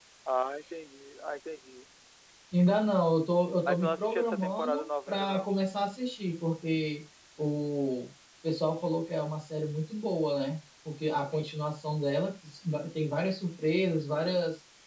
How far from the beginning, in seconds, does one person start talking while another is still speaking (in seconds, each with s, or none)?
3.7 s